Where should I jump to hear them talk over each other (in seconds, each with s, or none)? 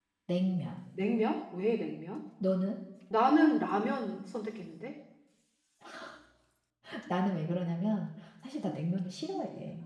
none